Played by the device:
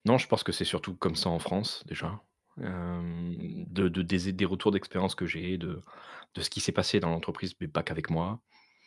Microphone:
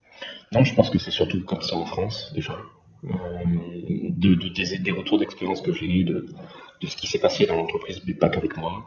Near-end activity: none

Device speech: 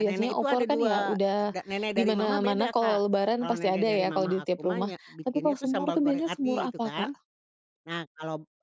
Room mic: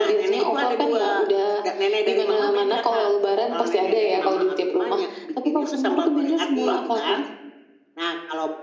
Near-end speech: none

